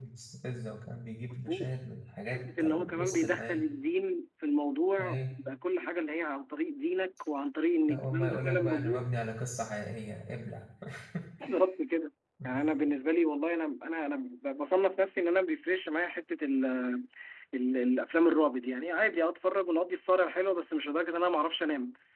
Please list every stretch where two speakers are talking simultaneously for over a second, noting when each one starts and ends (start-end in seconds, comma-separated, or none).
2.3-3.6, 7.9-9.1